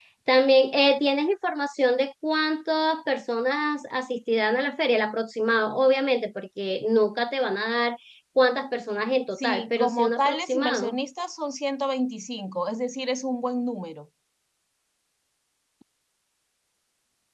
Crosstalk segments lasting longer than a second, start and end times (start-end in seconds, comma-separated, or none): 9.4-11.0